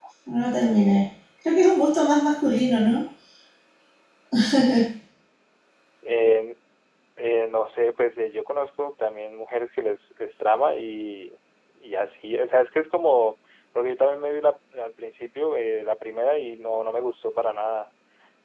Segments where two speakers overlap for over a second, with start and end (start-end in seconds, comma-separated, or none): none